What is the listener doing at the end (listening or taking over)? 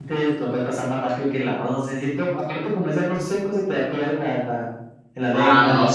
taking over